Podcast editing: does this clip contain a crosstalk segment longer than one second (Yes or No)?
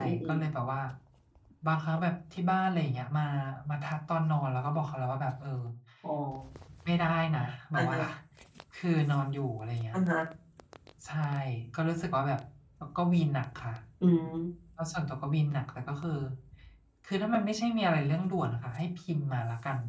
No